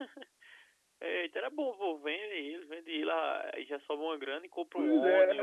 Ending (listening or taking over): taking over